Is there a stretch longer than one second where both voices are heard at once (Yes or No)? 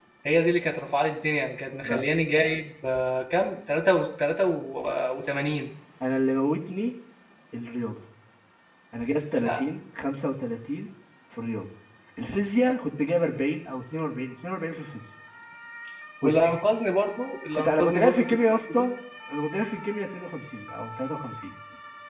Yes